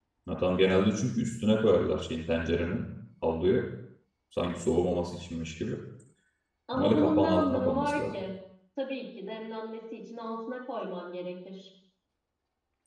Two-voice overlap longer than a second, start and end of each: 6.7-8.0

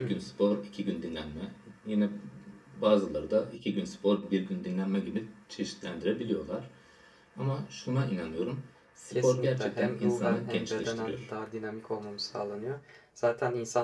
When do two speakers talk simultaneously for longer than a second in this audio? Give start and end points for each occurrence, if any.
9.1-11.3

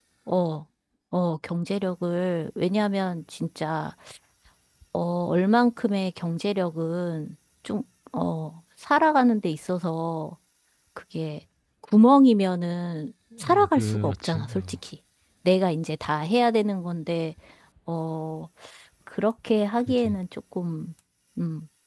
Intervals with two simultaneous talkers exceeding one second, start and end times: 13.4-14.8

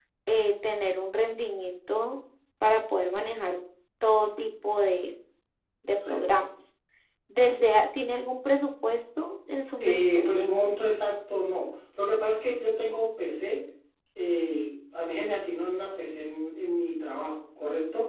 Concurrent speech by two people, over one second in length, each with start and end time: none

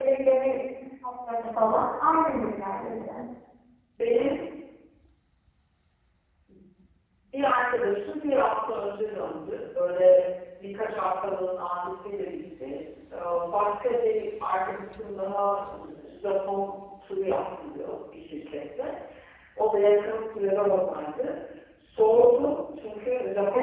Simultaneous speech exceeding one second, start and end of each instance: none

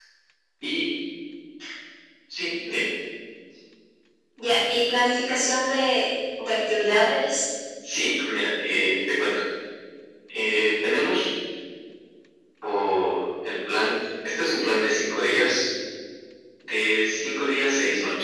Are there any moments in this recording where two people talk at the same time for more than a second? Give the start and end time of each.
none

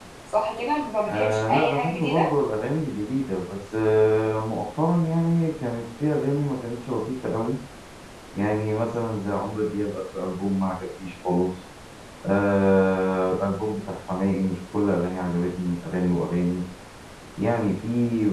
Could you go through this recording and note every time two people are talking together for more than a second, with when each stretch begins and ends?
1.1-2.3

